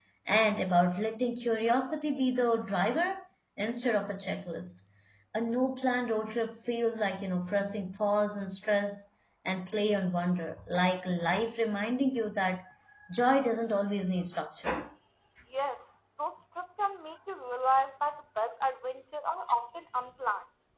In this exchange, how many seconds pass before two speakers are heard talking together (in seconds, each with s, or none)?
none